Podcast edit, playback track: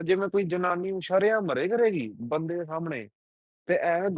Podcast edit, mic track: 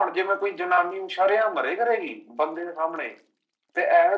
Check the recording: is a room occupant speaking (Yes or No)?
No